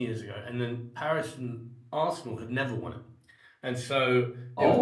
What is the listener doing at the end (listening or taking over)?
taking over